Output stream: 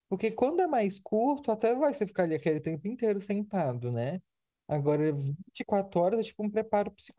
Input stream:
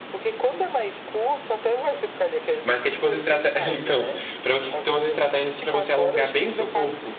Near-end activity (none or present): present